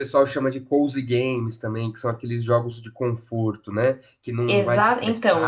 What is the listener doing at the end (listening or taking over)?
taking over